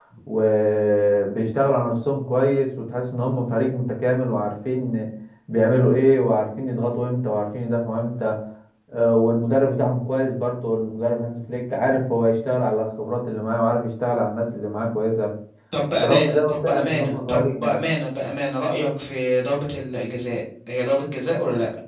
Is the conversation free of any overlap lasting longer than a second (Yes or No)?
No